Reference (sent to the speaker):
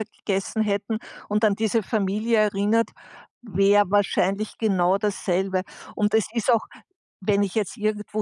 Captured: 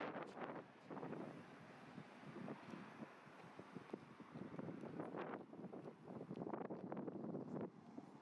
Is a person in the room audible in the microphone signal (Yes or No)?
No